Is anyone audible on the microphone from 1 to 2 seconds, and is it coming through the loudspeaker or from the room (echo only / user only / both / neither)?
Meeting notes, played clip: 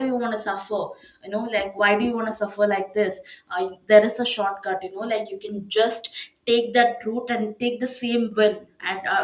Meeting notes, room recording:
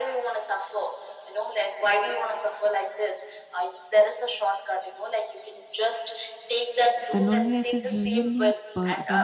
echo only